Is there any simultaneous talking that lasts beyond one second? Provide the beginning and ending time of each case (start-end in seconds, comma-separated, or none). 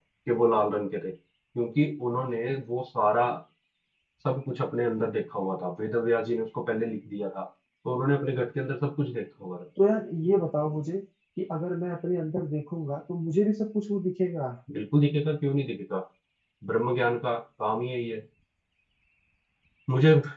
none